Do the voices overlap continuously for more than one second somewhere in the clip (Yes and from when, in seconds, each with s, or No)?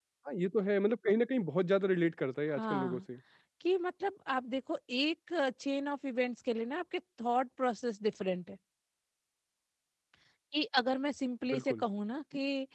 No